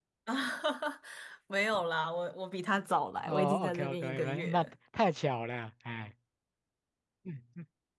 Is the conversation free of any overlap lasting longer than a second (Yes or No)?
No